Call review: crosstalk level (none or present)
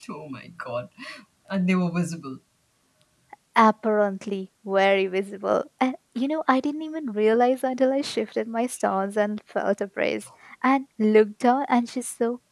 none